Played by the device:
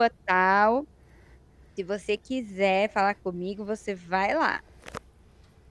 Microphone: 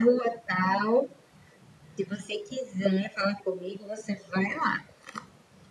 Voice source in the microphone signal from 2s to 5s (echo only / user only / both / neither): echo only